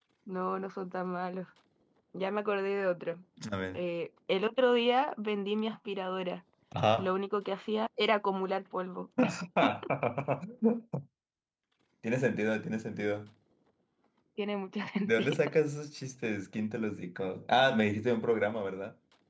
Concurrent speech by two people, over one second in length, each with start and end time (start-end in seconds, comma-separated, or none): none